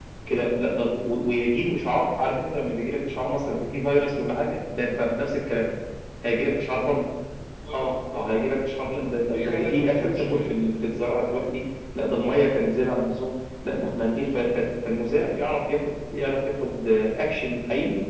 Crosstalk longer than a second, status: present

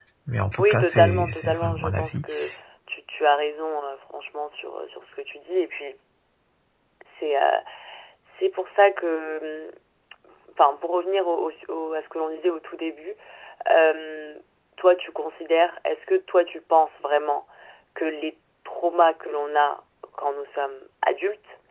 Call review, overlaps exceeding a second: present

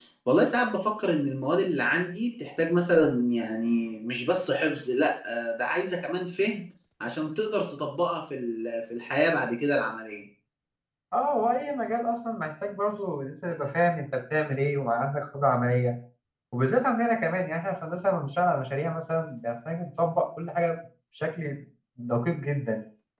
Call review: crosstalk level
none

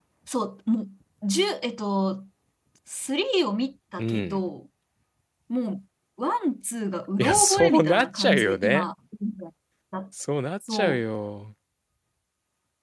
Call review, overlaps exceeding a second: present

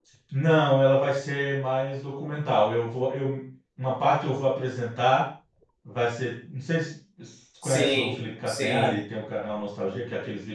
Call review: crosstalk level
present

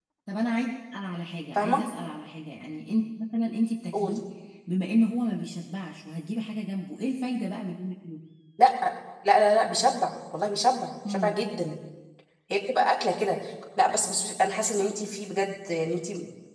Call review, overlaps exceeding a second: none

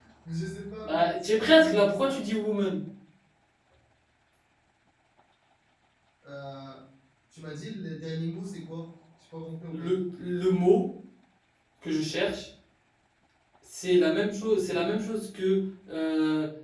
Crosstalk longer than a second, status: present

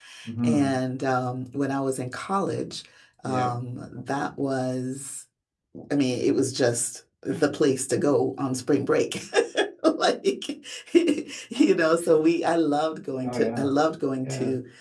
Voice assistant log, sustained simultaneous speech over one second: none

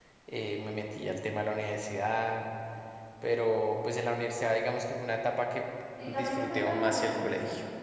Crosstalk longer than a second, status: present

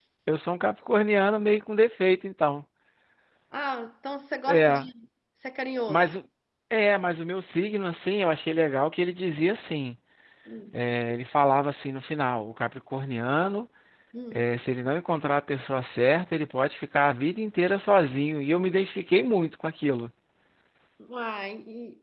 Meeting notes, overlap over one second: none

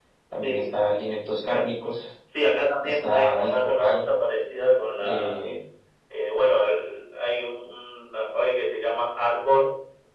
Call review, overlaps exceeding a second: present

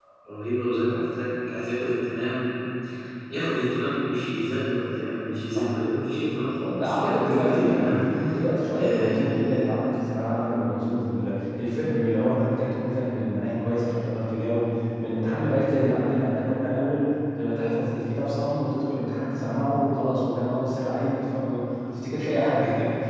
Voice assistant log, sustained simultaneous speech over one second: present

